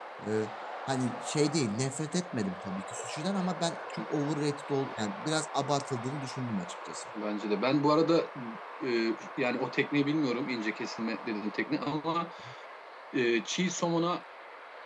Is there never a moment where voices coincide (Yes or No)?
Yes